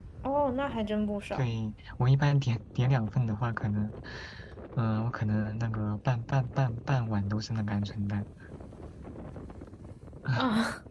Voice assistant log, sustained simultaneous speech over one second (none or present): none